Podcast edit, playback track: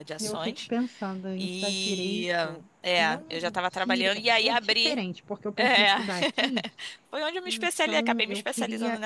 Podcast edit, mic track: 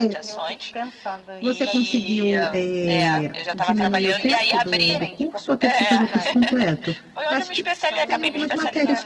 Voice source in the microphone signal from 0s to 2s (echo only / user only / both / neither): both